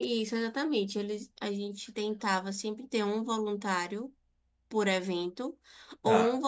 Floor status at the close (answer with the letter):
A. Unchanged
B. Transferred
A